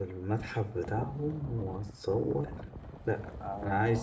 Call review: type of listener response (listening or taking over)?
listening